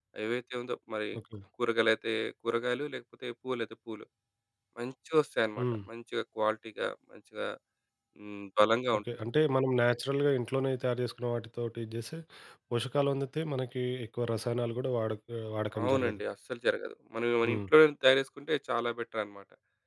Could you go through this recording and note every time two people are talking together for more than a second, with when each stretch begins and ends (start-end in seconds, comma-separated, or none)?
none